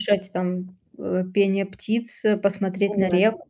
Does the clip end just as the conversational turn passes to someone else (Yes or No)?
No